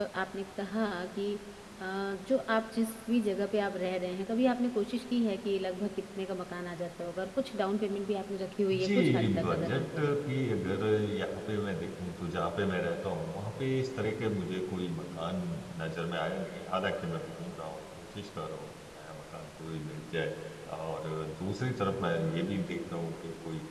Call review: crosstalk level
present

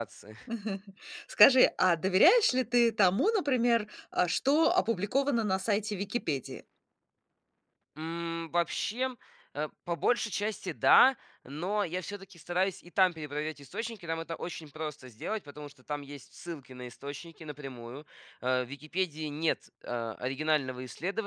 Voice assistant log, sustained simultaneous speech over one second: none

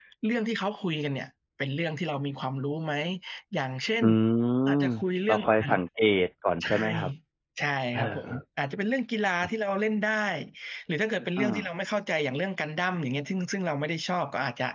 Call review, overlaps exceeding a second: none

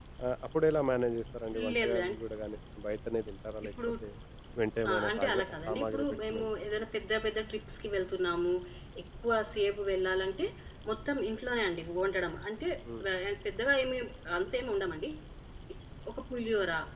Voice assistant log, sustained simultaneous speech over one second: present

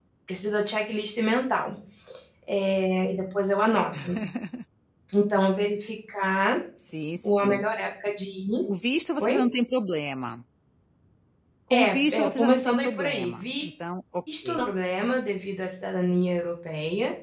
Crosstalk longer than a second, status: present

